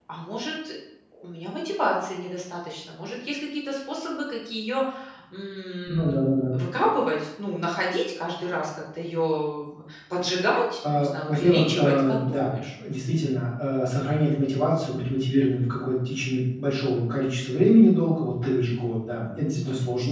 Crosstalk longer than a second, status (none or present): present